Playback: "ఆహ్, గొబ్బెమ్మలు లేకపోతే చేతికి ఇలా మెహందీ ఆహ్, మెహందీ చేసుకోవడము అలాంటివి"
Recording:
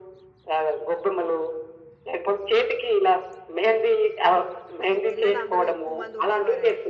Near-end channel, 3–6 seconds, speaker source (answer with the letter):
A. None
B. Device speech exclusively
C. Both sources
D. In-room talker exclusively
C